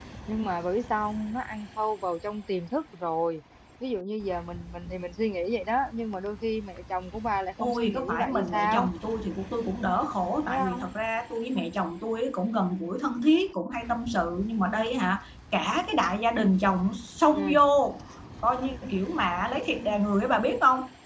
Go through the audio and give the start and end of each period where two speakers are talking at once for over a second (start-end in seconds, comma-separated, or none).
7.6-8.9